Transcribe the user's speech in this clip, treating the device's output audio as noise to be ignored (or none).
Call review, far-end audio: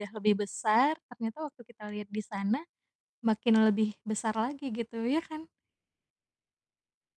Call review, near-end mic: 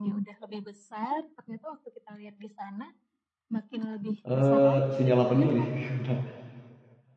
Eee, sinyal apa dulu nih, entar